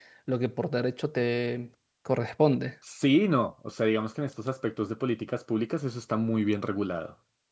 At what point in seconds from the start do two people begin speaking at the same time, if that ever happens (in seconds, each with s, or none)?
none